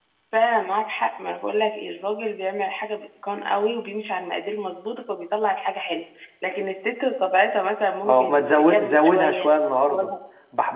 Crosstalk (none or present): present